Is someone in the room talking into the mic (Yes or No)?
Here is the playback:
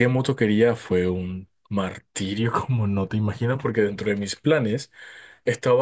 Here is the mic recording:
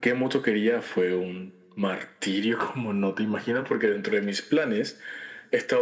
No